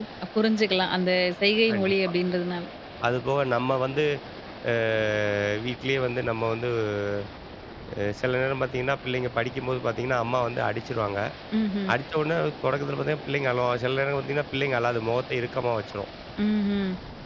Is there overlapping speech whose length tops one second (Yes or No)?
No